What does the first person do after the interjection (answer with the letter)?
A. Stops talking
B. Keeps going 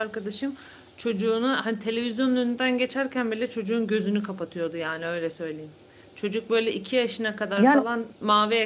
B